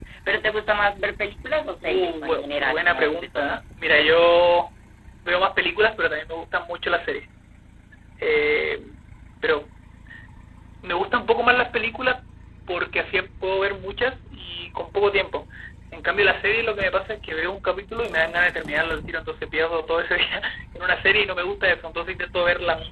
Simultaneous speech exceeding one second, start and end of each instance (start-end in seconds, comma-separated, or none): 1.8-3.4